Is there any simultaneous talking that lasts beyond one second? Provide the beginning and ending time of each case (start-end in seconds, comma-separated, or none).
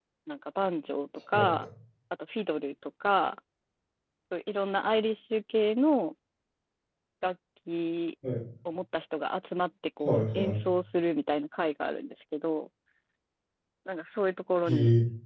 none